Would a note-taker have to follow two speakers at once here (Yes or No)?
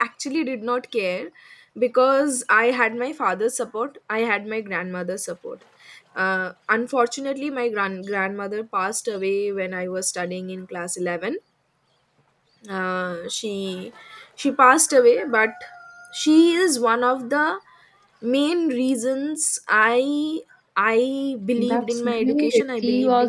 Yes